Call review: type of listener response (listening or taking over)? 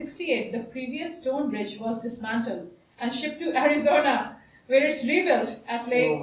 taking over